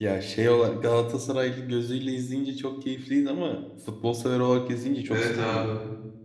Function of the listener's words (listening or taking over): taking over